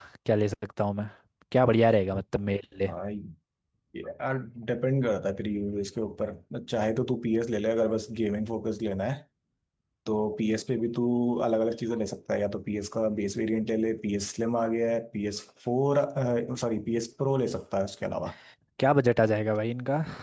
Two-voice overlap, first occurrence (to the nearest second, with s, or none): none